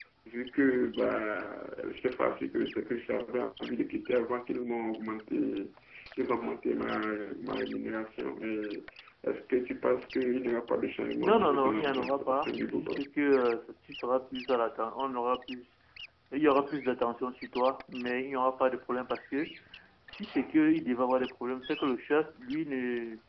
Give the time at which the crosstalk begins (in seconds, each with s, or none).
11.2 s